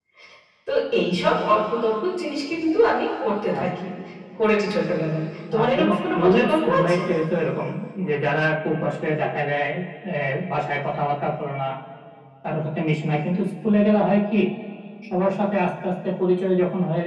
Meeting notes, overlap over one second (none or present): present